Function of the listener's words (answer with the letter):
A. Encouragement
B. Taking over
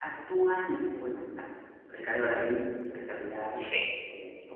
A